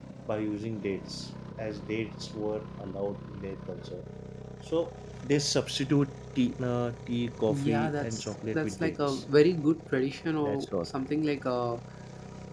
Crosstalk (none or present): present